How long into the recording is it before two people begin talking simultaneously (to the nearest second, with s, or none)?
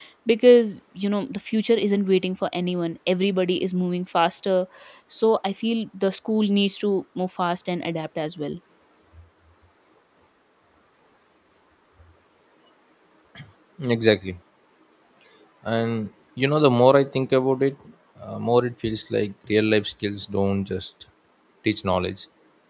none